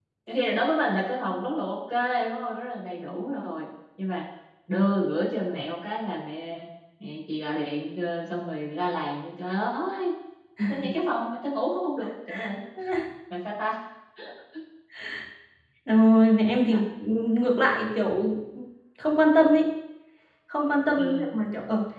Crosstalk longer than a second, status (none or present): none